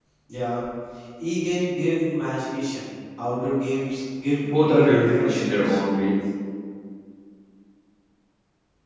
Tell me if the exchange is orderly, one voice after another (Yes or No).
No